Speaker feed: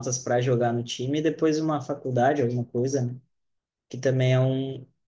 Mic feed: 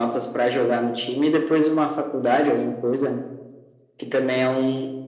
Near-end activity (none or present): none